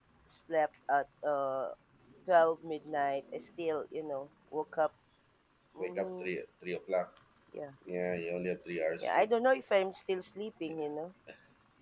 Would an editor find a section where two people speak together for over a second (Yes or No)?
No